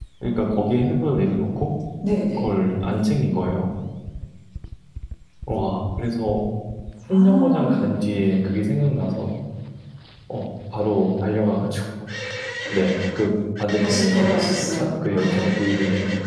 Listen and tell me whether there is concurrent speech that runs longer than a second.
Yes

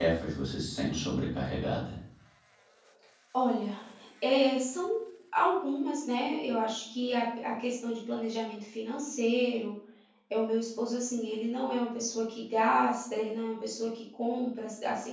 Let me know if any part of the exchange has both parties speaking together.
No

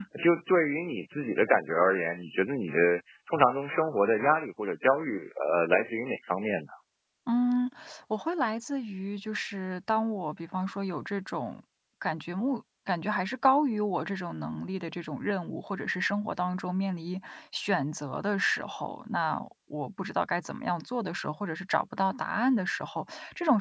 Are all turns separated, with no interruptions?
Yes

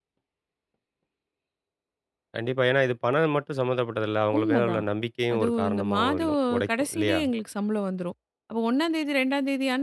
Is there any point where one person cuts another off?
Yes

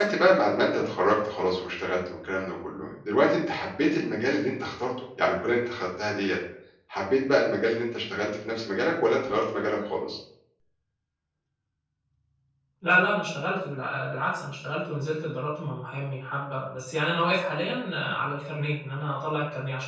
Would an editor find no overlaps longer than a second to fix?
Yes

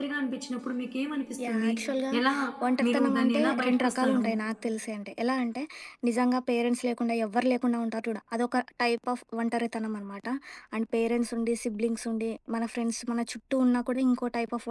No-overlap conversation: No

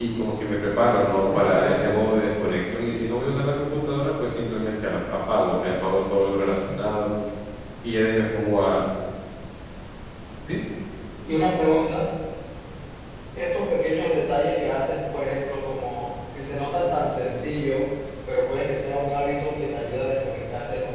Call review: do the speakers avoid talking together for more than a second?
Yes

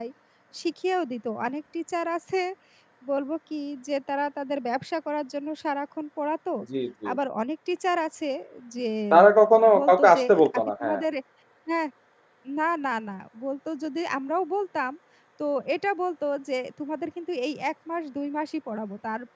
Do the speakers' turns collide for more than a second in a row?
Yes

